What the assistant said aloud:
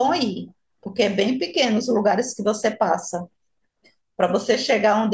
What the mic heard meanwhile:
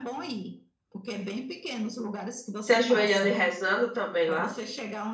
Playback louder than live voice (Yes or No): No